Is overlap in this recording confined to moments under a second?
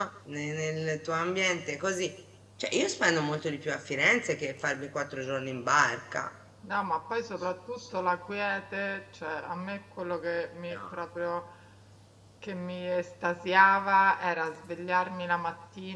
Yes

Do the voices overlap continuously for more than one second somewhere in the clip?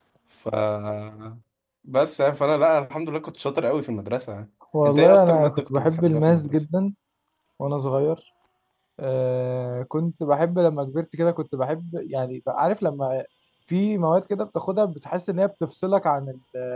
Yes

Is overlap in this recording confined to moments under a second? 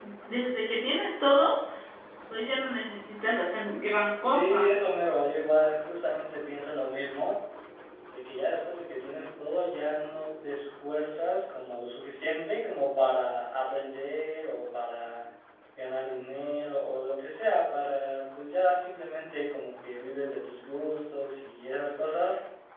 Yes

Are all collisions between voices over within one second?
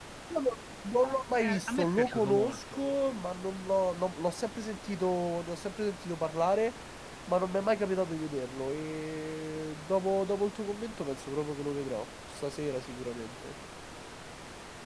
No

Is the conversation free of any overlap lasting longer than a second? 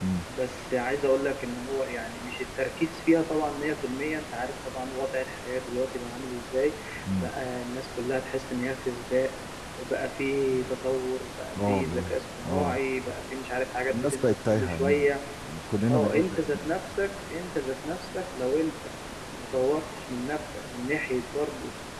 No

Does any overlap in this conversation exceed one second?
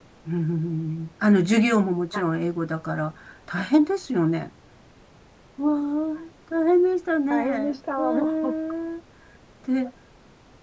Yes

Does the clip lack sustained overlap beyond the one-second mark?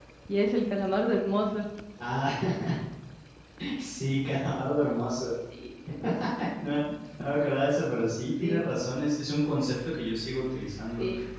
Yes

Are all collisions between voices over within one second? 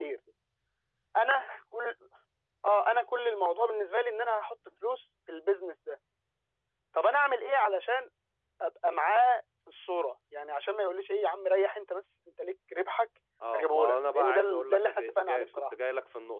No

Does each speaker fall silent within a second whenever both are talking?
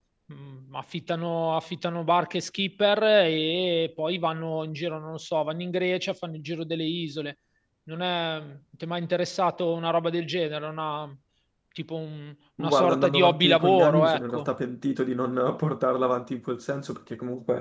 No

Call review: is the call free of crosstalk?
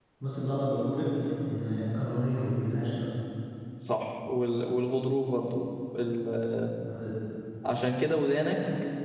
Yes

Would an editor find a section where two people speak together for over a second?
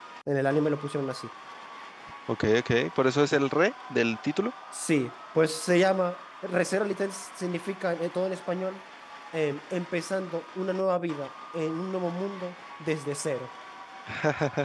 No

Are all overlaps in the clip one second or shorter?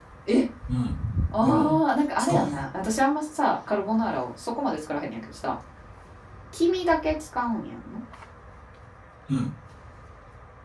Yes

